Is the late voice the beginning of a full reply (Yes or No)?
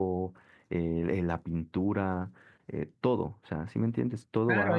Yes